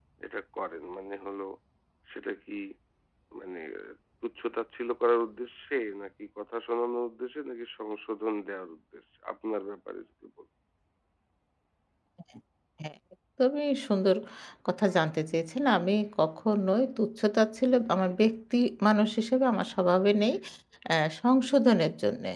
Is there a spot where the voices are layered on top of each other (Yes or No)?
No